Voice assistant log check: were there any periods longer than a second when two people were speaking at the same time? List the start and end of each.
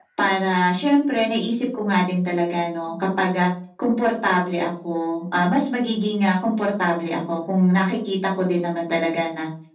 none

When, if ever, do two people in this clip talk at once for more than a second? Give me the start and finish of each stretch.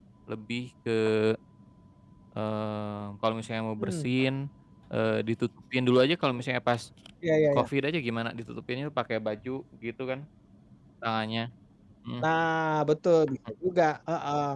none

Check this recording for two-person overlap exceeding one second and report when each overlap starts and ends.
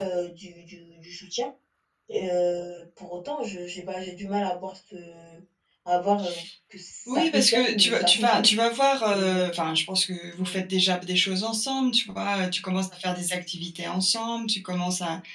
7.1-8.5

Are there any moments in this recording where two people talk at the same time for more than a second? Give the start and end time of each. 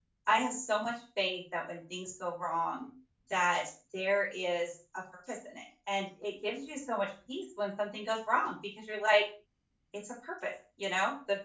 none

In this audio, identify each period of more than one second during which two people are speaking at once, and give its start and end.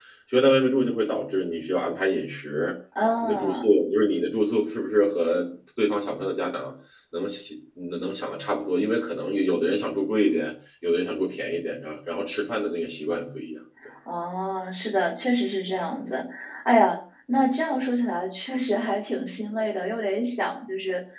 none

